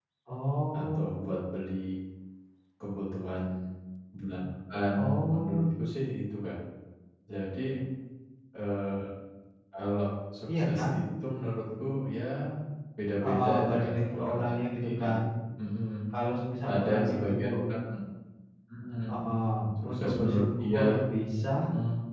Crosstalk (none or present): present